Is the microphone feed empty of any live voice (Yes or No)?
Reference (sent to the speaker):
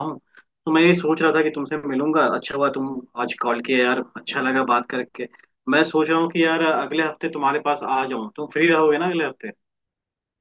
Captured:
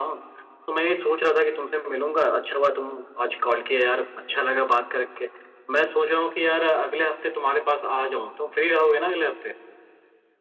Yes